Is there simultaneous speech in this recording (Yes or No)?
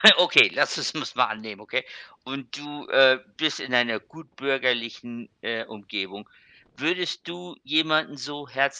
No